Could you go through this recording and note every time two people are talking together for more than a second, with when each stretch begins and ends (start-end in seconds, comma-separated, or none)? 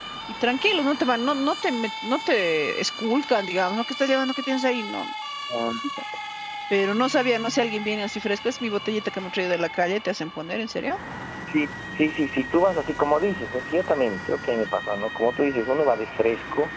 none